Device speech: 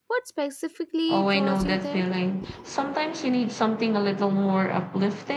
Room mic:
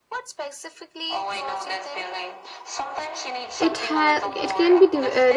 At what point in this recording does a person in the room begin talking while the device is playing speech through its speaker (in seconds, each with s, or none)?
3.6 s